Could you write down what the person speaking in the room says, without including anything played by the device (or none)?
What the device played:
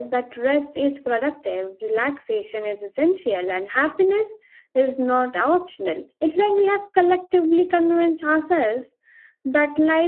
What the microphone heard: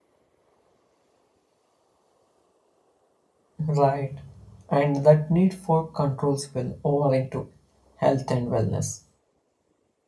Right. And that need for control spill over into health and wellness,